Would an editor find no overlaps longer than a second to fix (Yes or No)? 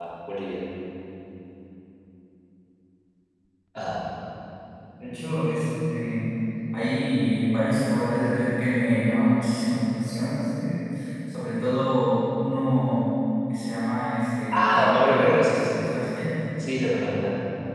No